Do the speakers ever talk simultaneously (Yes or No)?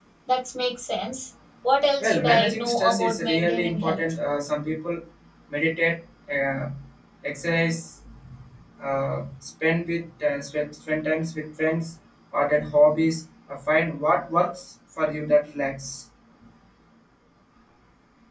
Yes